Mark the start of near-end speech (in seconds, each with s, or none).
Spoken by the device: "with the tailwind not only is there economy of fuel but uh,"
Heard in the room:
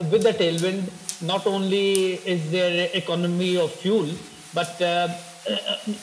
none